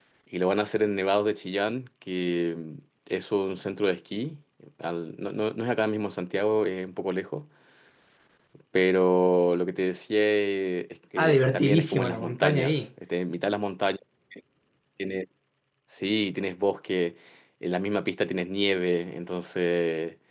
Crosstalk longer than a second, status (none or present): present